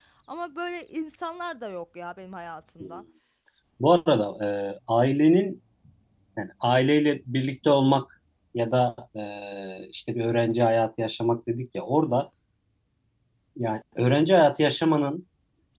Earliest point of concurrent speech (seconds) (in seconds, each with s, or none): none